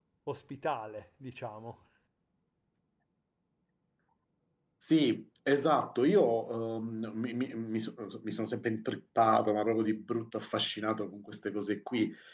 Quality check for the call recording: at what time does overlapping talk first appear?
none

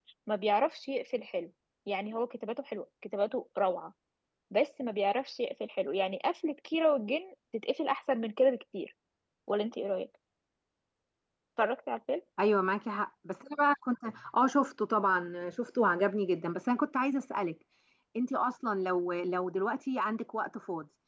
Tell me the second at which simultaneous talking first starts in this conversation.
none

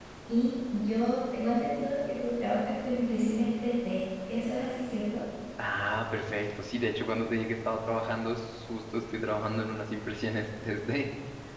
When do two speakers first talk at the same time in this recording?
none

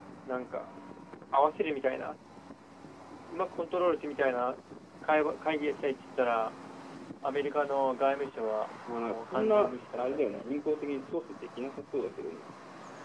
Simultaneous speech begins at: 8.9 s

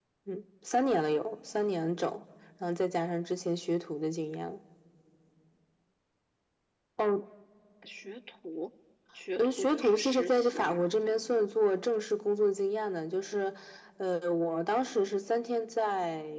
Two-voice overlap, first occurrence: 9.4 s

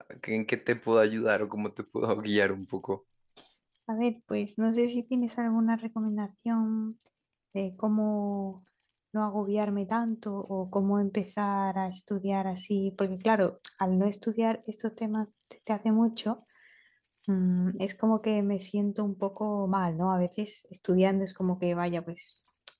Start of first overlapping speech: none

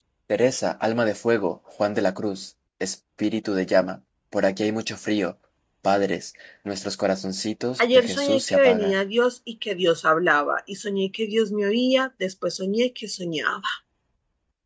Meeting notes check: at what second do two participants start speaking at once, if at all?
7.8 s

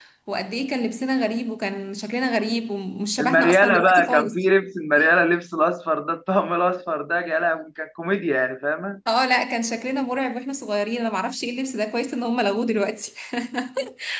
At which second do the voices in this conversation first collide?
3.2 s

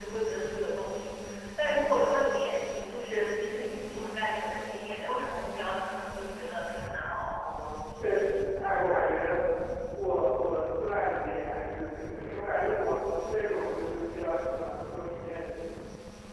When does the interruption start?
none

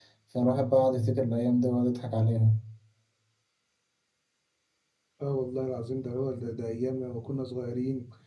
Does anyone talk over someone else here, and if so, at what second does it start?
none

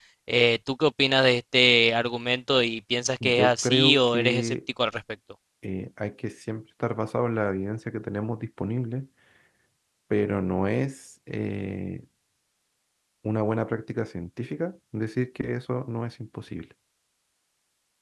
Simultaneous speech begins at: 3.2 s

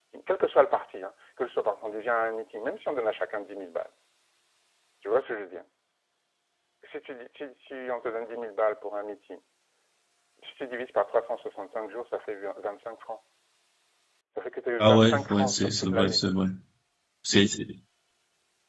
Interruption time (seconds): 14.8 s

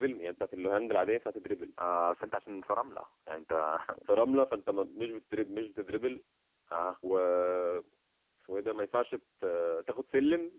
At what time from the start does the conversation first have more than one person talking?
none

